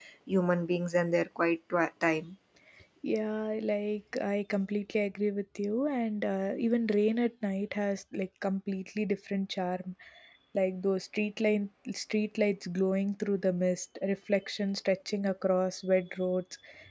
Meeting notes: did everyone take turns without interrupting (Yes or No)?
Yes